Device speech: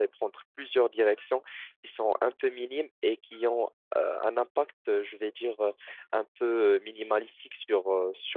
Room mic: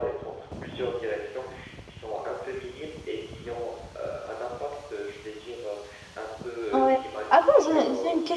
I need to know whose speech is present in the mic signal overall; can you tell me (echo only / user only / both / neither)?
both